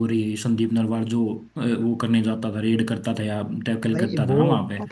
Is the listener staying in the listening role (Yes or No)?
No